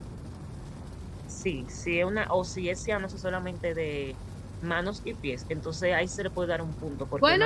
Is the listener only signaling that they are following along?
No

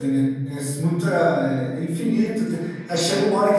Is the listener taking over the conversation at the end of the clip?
No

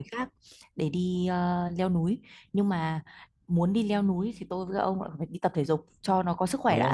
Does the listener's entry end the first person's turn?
Yes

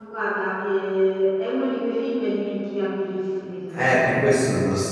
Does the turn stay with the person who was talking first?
No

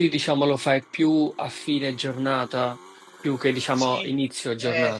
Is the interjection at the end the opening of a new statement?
Yes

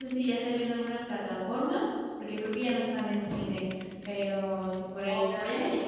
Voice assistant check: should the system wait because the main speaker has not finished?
No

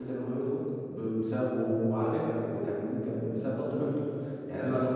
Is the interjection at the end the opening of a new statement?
No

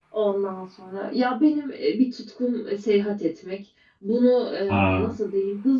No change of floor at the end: Yes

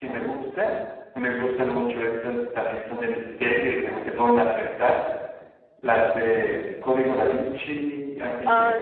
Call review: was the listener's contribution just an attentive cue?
Yes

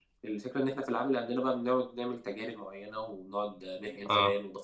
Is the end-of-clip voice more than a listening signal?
No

